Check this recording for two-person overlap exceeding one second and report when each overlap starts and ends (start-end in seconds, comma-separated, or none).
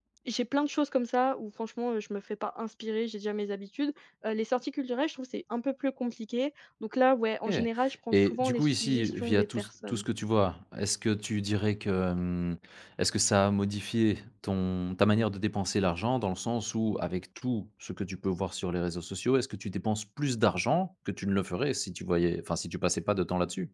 8.1-10.0